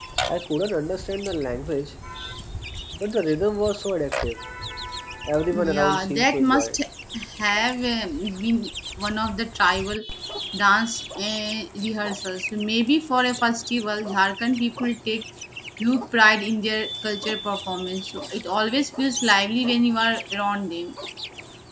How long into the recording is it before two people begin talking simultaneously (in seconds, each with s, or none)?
5.5 s